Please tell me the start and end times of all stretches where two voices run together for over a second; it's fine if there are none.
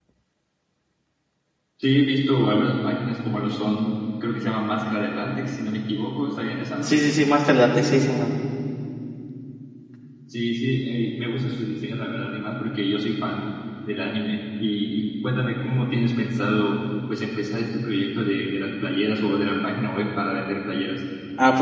none

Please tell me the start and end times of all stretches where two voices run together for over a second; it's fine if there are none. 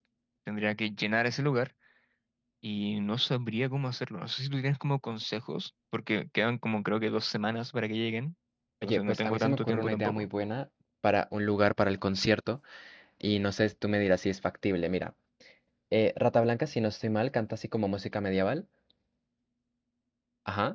8.8-10.2

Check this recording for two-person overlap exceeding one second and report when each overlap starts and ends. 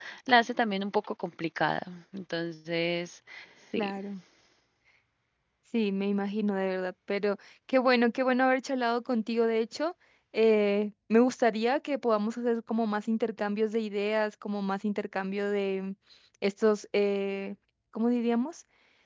none

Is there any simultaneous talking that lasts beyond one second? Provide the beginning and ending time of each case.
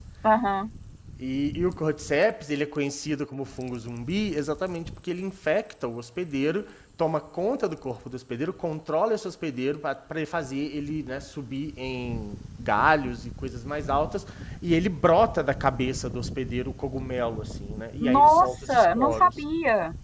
18.0-19.3

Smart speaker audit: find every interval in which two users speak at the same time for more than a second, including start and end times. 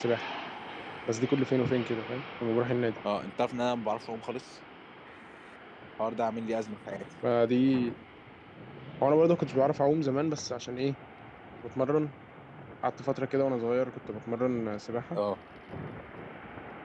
none

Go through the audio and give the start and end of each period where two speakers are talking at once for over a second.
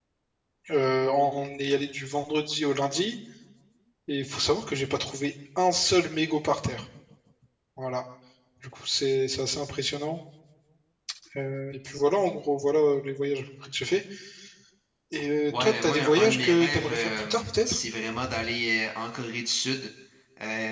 15.5-17.8

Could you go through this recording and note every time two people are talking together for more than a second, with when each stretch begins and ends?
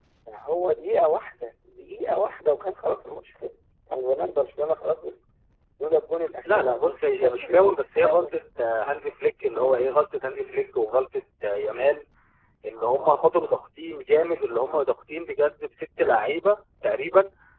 6.5-8.4

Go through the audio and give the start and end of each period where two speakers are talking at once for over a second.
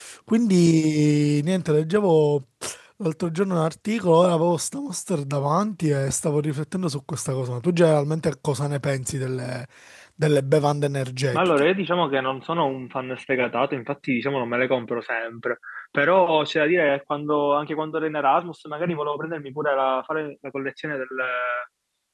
none

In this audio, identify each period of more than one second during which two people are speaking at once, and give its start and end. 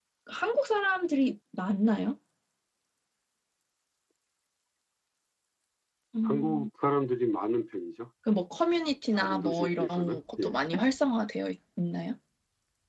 9.2-10.5

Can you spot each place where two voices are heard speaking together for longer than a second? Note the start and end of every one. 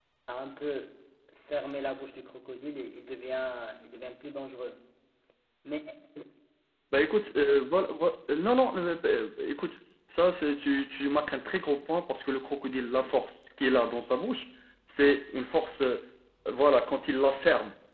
none

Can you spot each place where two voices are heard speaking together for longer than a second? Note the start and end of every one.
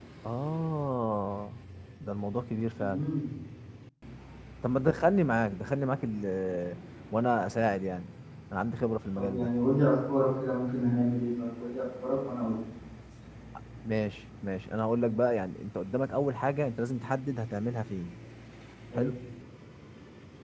none

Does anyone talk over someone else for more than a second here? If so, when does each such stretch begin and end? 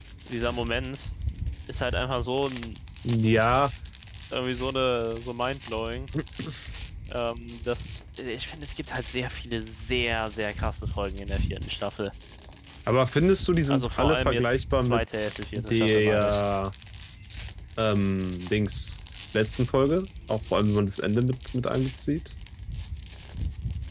13.6-16.4

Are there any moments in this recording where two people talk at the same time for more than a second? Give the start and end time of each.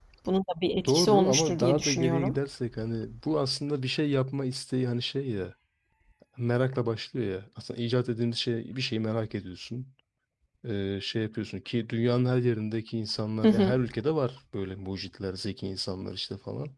0.9-2.4

